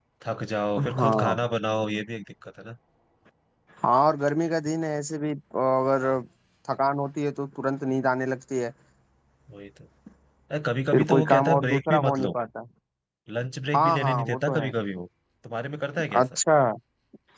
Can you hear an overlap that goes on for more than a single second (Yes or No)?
Yes